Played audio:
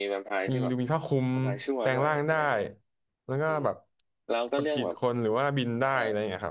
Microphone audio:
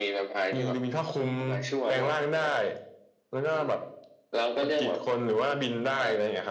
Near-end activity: none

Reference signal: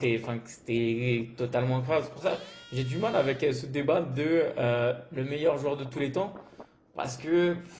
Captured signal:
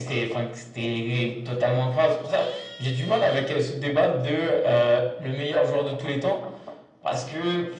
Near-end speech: none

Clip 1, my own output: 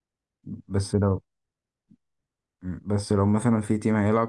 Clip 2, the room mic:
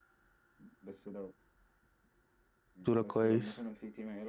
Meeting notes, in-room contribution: present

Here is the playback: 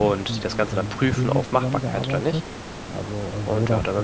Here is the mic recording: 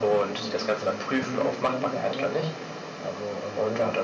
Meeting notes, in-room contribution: none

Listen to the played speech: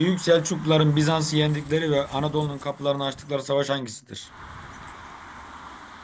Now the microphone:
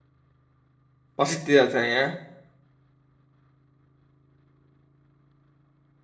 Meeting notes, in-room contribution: present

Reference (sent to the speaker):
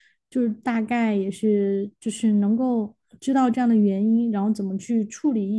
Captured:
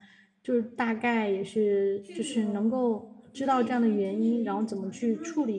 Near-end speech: present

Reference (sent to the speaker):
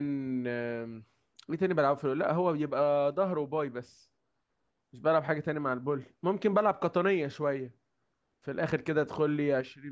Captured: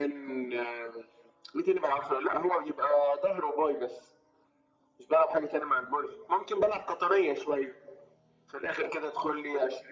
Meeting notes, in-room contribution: none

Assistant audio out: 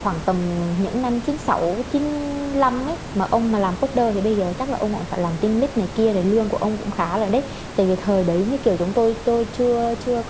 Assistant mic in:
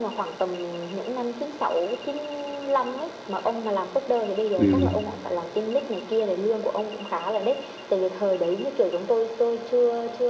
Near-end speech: present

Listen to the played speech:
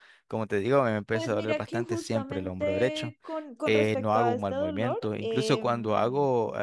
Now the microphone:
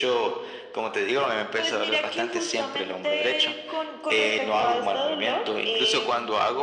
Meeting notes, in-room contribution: none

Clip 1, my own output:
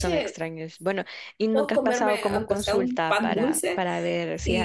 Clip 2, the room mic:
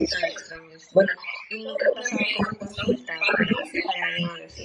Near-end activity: none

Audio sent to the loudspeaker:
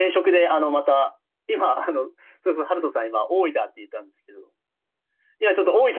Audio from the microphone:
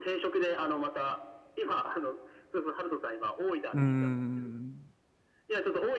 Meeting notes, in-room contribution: present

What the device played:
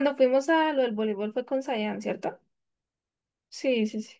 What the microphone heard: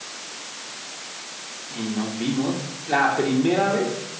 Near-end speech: present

